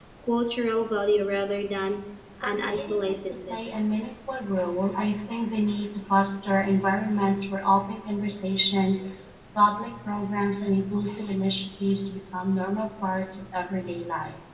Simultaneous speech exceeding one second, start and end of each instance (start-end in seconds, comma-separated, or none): 2.4-3.8